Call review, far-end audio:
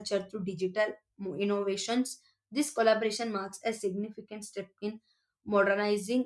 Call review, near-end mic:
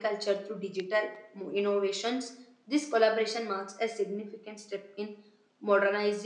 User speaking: No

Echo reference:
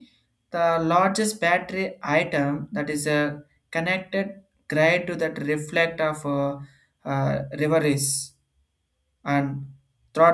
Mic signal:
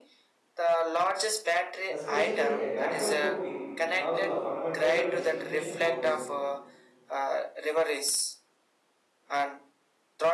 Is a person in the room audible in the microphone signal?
Yes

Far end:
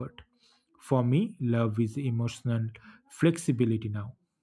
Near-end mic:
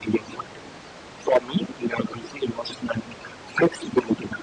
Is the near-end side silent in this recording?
Yes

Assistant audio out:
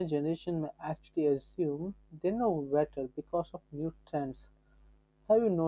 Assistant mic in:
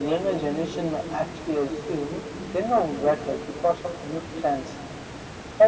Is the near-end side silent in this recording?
Yes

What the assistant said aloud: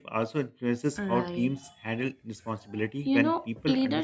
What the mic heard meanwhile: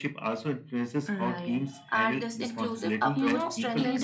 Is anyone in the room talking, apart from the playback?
Yes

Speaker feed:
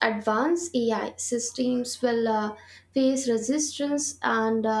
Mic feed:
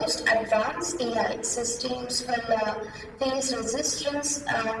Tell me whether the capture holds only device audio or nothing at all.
Yes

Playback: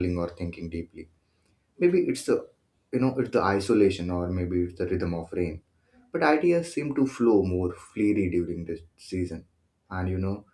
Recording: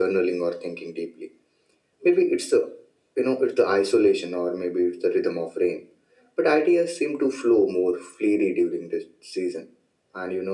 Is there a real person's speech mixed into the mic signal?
No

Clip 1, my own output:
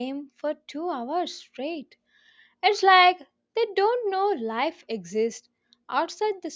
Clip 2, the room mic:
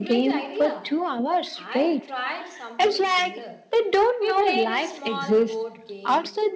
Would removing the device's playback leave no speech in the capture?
No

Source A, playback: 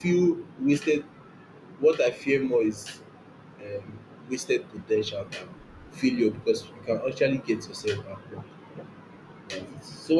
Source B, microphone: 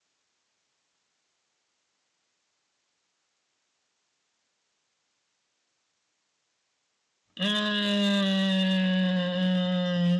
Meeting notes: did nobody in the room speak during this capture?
No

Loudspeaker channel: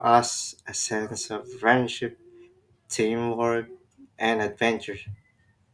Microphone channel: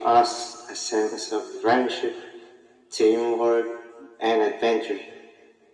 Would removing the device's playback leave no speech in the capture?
Yes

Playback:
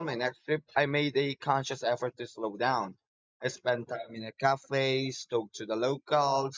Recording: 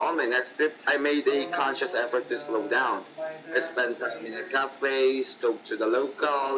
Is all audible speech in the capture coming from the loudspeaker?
No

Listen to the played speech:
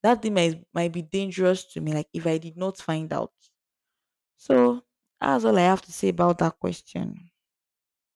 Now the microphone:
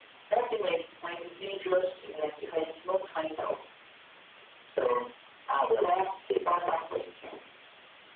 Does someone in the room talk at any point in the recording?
No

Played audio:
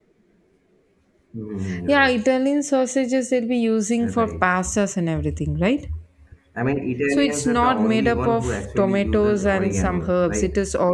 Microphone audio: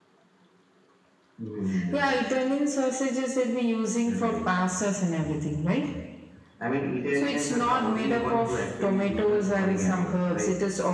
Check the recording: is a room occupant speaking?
No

